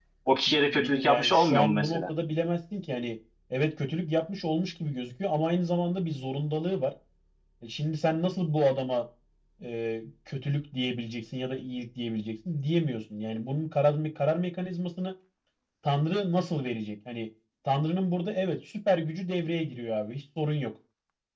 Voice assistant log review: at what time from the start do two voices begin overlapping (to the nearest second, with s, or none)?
1 s